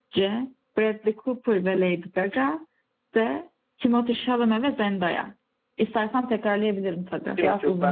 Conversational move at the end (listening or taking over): taking over